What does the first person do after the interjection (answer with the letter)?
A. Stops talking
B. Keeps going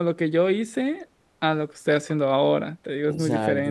A